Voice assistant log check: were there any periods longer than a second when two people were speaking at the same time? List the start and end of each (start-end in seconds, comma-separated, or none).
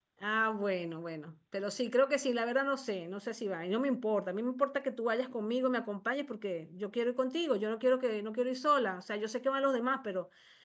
none